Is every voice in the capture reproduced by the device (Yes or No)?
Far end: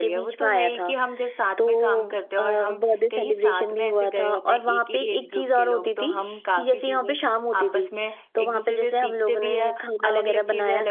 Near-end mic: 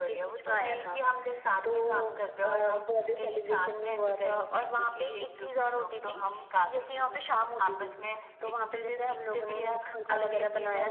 Yes